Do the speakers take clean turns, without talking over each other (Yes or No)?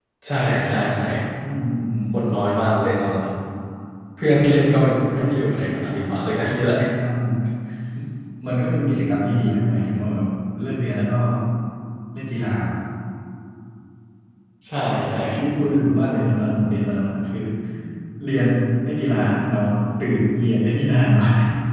Yes